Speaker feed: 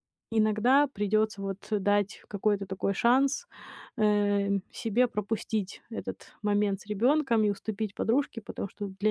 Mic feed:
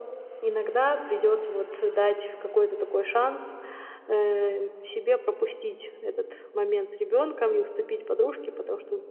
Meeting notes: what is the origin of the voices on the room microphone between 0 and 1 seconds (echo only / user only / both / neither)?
echo only